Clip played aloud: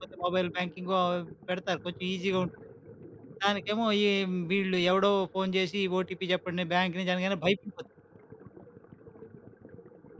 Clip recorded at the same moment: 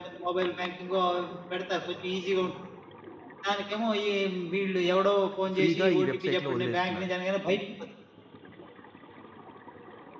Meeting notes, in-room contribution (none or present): present